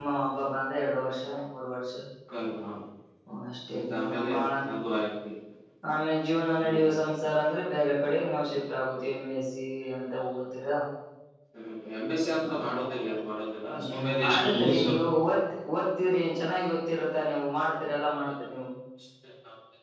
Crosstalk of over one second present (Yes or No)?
Yes